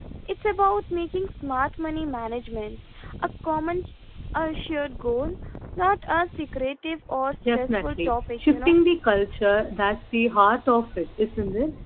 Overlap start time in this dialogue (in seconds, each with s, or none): 7.5 s